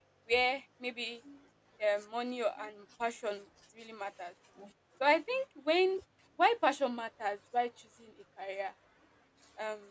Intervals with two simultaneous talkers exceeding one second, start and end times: none

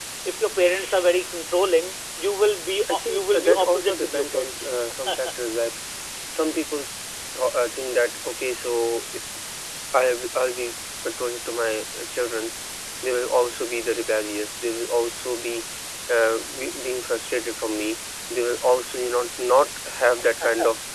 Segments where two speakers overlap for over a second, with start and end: 2.9-4.7

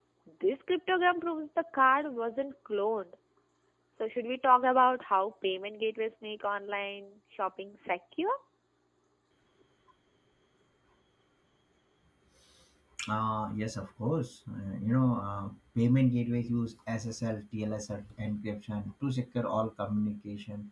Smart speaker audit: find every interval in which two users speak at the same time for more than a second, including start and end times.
none

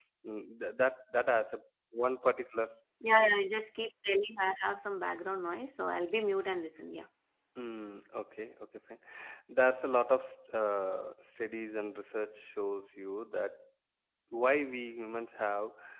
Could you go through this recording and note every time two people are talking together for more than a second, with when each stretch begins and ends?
none

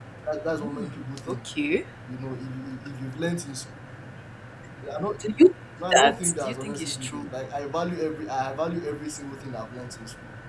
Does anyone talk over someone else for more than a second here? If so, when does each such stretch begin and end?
5.9-7.3

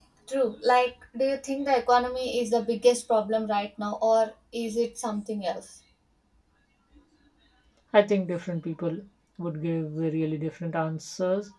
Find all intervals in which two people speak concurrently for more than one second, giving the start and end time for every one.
none

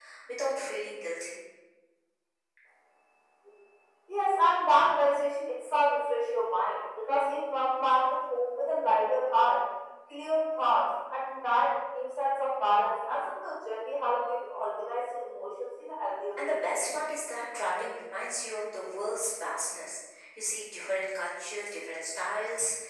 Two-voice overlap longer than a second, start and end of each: none

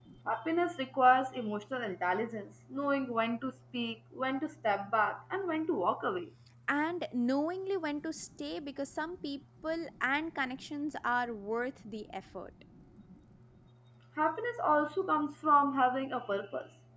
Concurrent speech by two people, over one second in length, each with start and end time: none

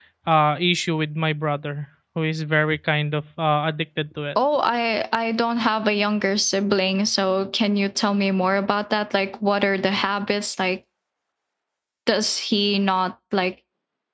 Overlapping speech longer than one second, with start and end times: none

